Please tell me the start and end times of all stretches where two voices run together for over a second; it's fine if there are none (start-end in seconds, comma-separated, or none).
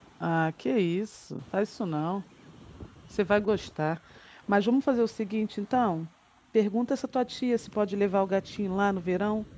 none